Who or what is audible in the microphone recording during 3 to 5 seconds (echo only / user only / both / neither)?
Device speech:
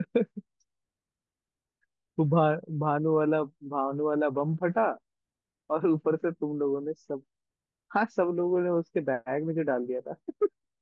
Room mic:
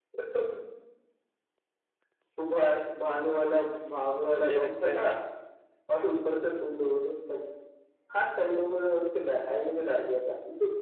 both